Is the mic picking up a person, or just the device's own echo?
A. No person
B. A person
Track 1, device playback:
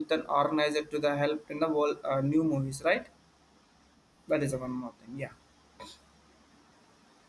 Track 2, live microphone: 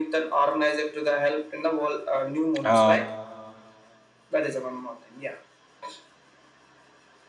B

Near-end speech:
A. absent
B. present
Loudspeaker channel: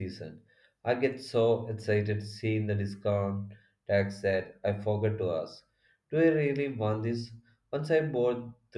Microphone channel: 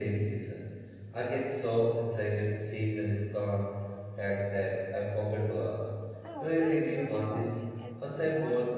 B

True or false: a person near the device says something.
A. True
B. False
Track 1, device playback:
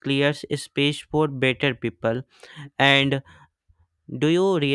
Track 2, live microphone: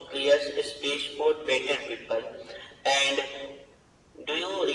B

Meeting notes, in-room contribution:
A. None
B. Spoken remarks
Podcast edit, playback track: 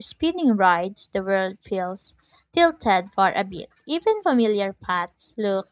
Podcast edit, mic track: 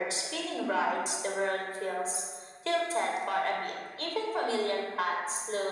A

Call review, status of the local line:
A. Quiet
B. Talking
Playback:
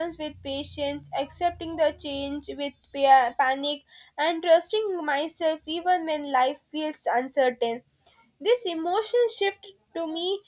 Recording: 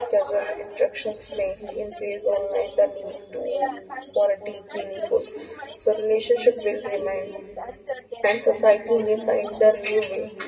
B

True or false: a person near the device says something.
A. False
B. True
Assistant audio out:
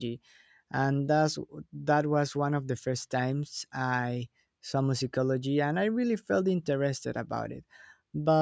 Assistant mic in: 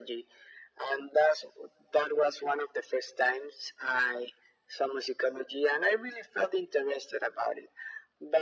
A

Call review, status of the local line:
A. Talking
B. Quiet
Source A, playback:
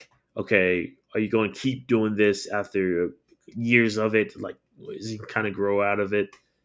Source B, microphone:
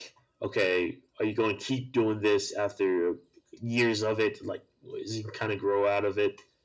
B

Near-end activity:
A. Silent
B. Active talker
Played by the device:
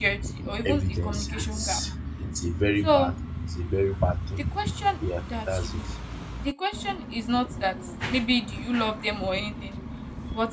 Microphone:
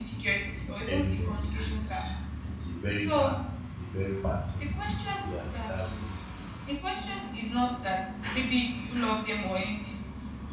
A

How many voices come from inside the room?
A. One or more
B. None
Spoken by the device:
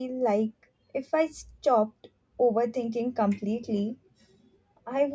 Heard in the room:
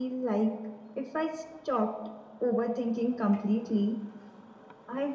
B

